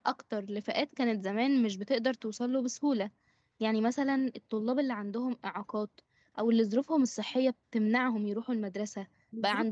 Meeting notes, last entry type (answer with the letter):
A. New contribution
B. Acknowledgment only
B